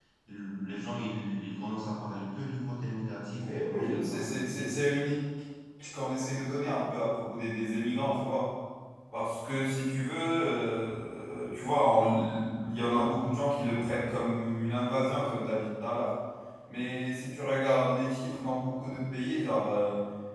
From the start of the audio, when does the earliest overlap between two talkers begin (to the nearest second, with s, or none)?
3 s